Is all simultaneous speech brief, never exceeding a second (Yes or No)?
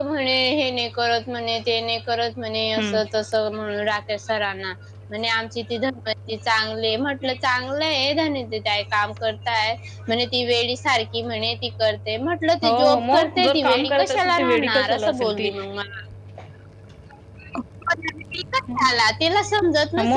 No